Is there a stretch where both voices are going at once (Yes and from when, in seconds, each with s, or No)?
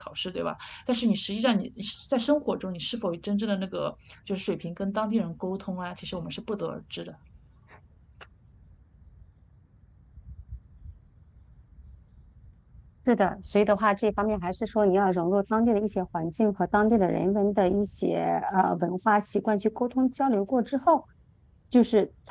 No